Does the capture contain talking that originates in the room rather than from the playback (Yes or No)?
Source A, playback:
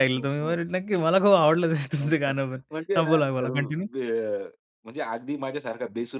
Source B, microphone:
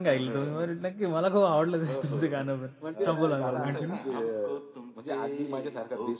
Yes